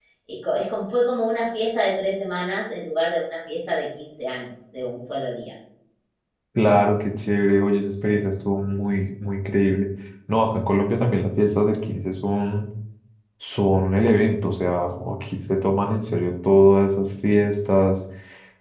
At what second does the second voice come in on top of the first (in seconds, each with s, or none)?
none